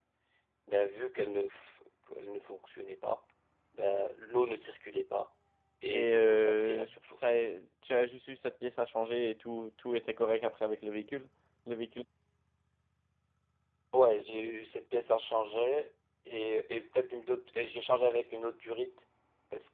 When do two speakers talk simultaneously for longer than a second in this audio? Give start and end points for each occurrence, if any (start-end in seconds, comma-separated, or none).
5.9-7.2